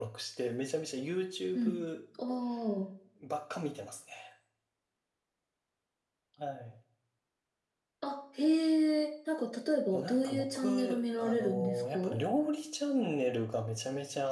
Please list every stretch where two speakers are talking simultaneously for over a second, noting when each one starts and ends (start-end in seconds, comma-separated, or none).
9.9-11.9